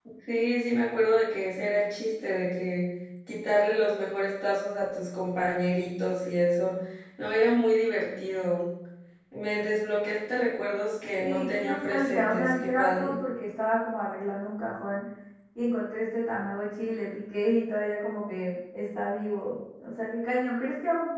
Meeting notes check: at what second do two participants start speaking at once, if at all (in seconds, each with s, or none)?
11.2 s